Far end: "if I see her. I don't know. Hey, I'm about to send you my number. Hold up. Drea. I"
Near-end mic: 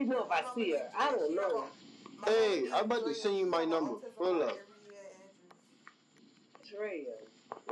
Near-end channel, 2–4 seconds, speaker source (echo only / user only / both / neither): both